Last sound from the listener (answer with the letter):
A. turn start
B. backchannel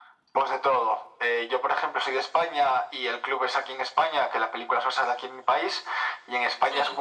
B